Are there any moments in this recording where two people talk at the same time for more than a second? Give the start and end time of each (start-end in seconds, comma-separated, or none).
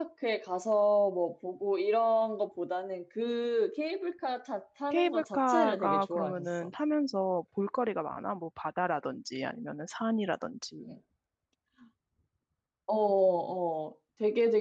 4.9-6.7